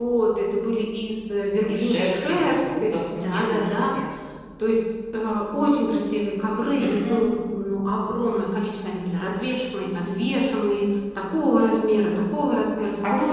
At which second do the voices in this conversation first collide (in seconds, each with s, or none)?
1.6 s